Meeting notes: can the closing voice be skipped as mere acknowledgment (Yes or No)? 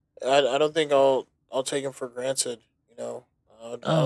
No